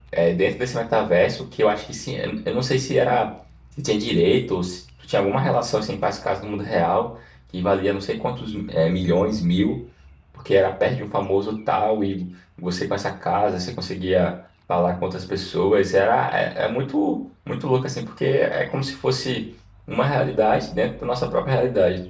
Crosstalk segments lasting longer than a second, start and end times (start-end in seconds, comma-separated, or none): none